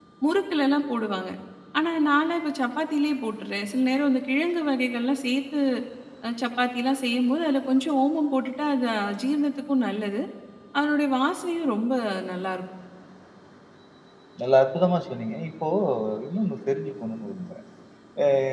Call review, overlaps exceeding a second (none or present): none